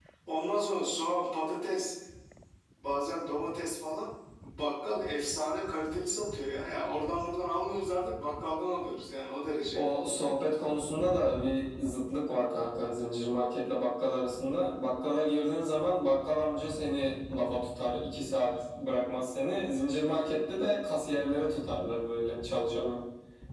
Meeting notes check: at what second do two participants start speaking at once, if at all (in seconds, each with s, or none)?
none